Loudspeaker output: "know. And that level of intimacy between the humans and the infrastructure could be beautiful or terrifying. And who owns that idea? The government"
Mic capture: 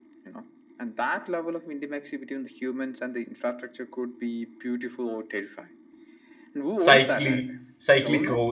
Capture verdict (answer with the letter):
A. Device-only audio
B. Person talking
B